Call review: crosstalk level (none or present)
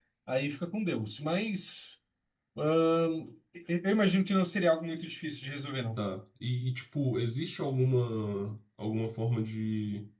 none